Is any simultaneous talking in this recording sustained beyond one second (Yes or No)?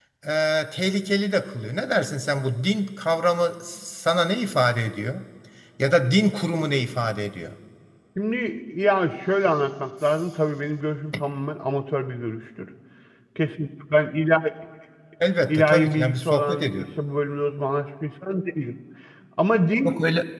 Yes